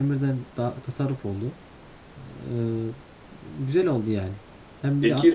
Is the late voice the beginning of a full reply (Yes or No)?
No